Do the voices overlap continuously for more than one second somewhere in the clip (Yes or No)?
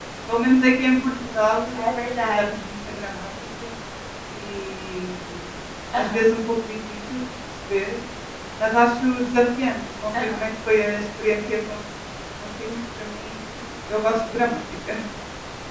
No